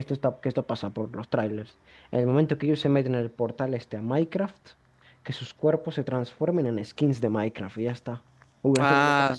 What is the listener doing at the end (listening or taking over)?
taking over